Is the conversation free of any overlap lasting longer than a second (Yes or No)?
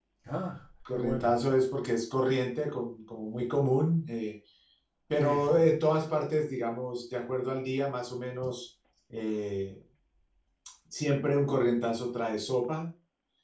Yes